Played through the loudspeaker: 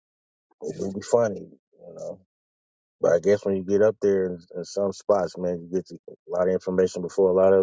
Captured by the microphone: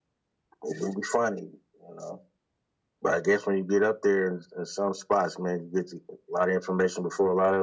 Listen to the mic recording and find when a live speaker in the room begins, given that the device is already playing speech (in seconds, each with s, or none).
none